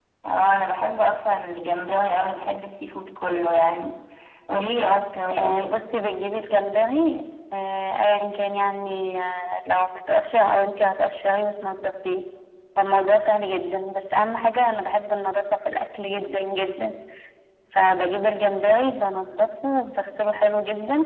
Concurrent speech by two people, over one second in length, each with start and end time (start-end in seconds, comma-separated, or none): none